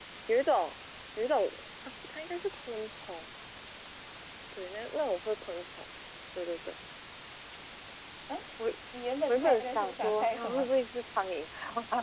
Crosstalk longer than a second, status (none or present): present